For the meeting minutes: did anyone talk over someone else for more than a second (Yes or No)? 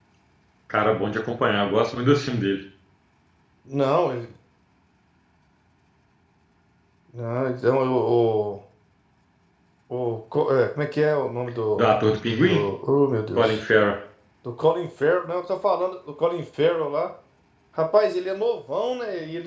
No